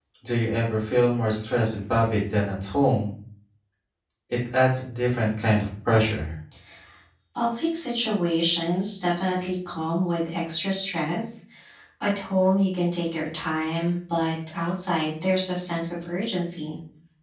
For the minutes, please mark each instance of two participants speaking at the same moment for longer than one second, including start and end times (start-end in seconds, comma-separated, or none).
none